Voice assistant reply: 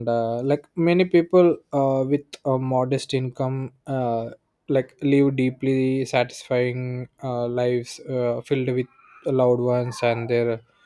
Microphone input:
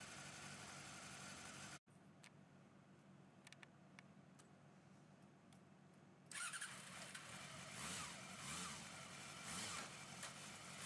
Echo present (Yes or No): No